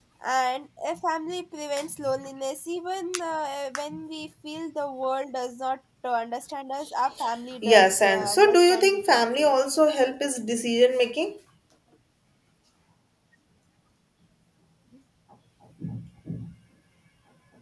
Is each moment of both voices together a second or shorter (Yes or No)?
No